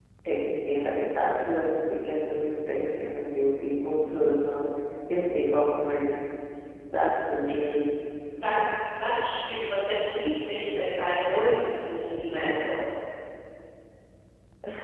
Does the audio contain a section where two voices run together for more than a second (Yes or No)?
No